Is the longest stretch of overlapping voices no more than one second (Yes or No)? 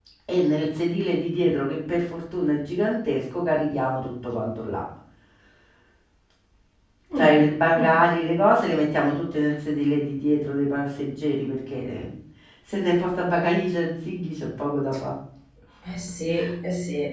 Yes